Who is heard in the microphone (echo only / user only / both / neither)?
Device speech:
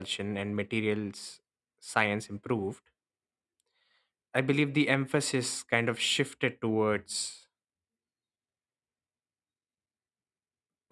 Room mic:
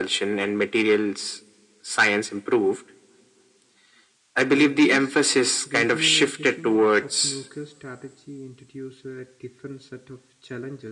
both